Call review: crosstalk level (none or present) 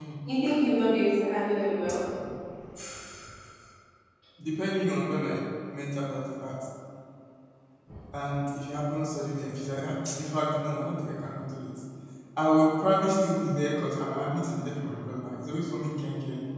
none